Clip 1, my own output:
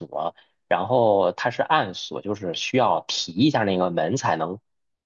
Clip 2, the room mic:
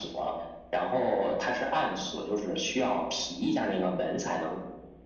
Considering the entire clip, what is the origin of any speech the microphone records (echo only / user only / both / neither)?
echo only